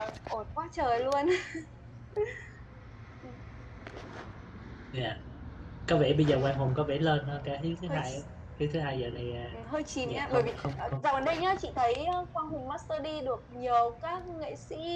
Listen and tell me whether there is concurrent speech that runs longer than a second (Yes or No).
Yes